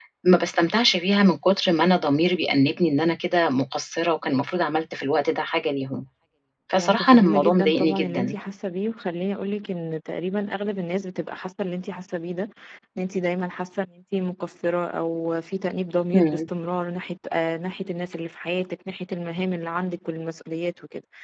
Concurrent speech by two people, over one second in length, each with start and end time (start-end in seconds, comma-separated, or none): 6.8-8.4